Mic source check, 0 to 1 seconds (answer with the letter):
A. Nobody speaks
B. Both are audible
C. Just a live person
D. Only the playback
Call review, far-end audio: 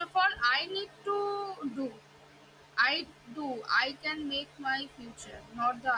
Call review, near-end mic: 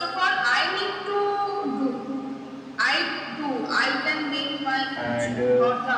D